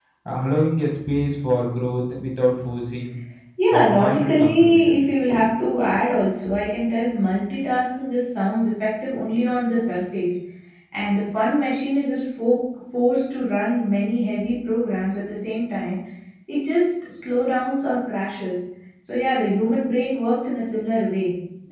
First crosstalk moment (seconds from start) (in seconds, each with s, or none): 3.8 s